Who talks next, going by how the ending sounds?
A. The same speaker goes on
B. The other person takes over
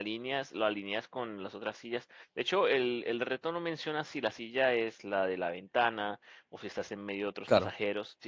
A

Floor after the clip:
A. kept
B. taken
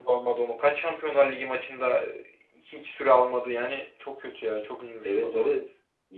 B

